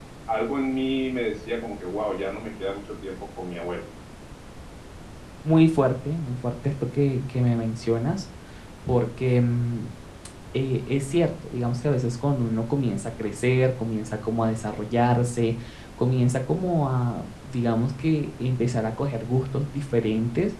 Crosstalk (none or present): none